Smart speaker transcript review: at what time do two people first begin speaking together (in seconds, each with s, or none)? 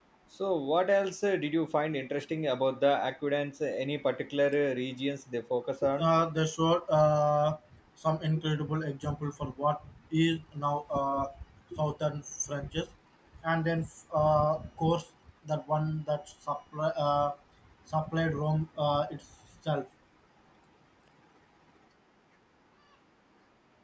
none